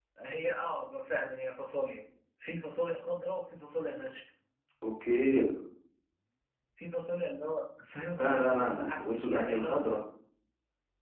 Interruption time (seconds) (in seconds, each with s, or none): 8.1 s